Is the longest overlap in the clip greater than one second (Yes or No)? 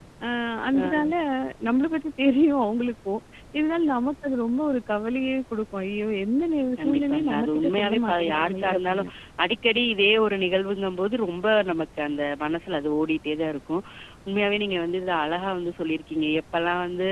Yes